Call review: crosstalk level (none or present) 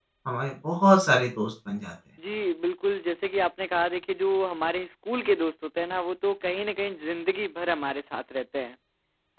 none